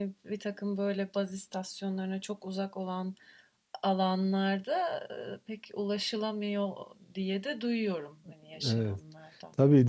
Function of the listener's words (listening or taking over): taking over